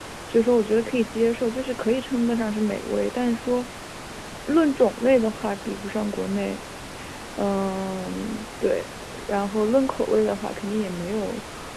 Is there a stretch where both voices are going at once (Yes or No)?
No